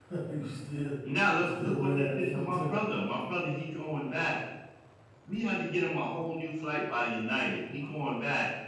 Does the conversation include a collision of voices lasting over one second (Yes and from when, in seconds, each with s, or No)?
Yes, from 1.4 s